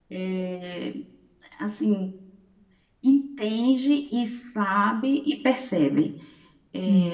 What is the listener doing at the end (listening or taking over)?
taking over